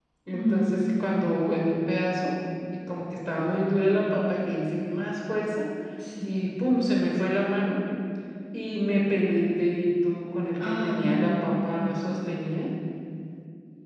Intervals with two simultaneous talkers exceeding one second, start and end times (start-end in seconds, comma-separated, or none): 10.6-12.0